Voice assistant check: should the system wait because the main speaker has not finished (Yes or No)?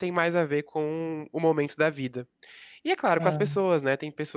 Yes